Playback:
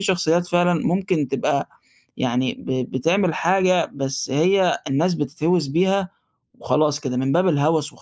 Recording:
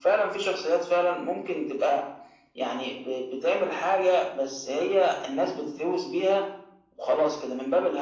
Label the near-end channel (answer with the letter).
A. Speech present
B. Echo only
B